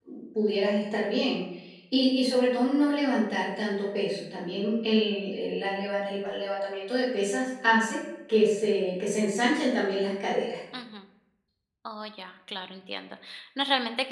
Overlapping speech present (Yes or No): No